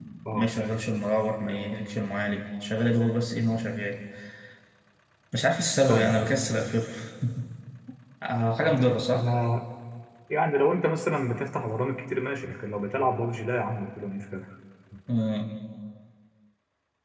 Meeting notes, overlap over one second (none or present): none